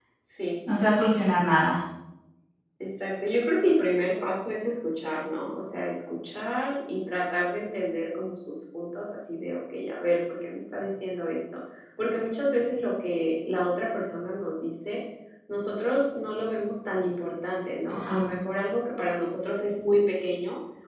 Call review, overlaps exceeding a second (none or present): none